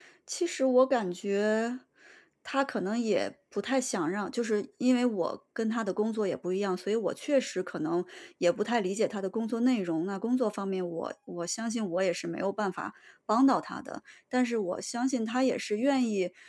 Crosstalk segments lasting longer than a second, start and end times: none

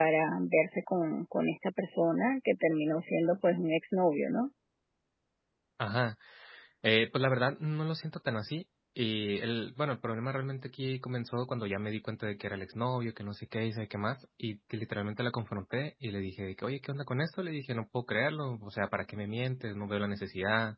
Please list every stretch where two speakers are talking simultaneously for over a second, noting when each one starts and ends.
none

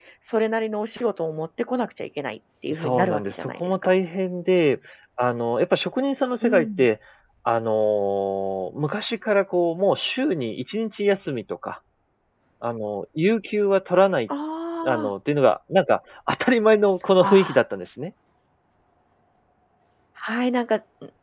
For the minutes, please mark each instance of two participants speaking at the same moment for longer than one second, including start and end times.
2.7-3.9

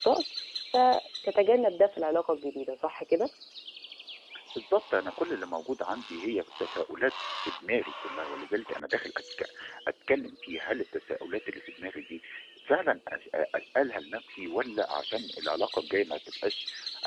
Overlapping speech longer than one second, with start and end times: none

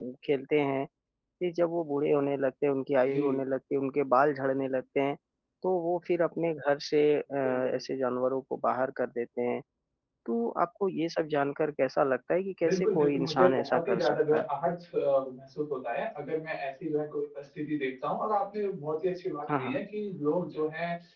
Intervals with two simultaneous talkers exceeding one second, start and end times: 12.6-14.4

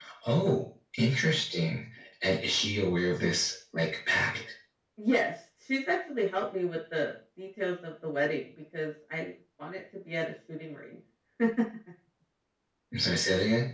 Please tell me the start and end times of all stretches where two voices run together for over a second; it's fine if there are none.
none

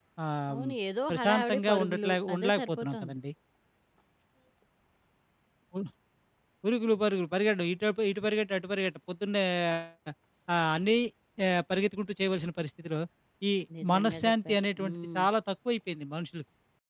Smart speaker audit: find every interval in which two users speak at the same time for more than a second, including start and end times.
1.1-3.2, 13.9-15.2

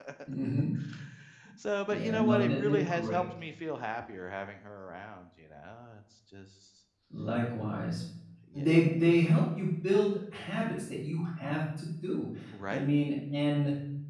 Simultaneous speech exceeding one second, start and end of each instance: 1.9-3.2

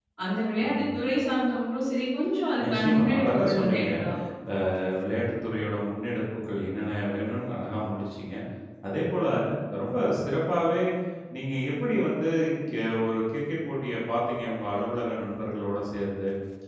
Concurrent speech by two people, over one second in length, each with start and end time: 2.6-3.9

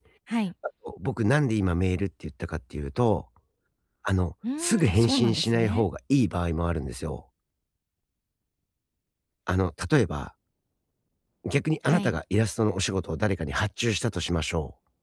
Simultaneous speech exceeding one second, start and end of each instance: 4.6-5.9

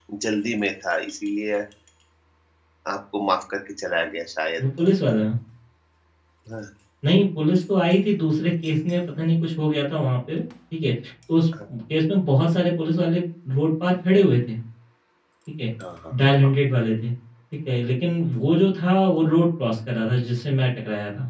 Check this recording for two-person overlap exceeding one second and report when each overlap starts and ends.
none

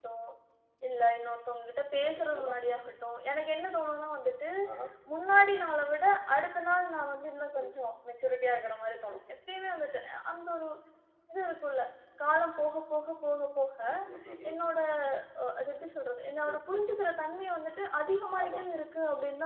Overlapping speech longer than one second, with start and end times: none

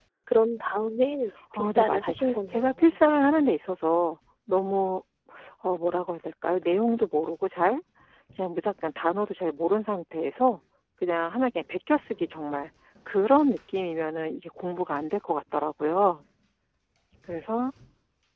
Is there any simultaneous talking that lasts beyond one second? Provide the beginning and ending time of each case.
1.6-2.9

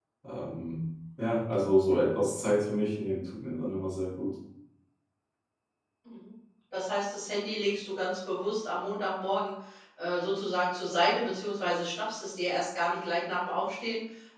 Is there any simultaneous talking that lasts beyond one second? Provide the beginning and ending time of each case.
none

